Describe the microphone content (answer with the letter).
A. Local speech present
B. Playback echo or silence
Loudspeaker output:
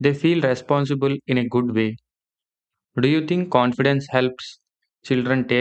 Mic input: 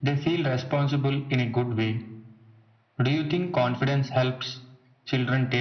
B